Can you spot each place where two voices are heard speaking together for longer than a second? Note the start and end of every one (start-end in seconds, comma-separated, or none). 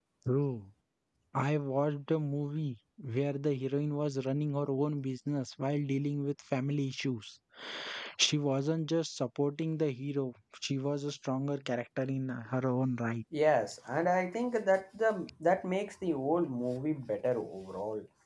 none